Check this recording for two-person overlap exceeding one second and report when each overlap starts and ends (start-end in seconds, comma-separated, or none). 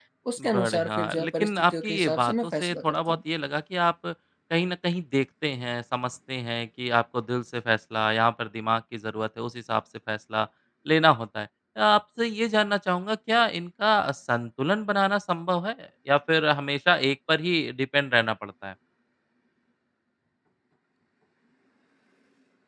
0.5-3.2